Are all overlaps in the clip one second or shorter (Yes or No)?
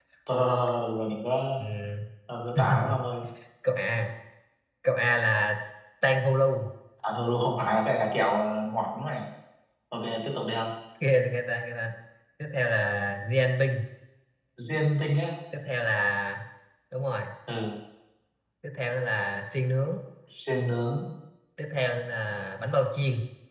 Yes